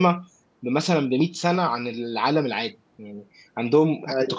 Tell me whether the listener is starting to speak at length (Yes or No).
No